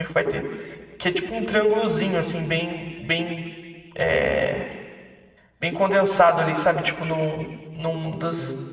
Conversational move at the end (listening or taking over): listening